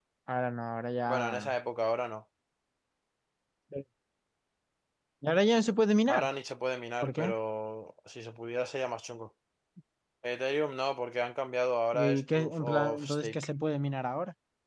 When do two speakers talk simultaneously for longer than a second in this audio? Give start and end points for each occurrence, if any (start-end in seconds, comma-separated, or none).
11.9-13.4